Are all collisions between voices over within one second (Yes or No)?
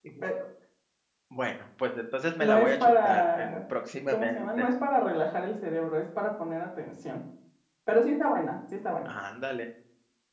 No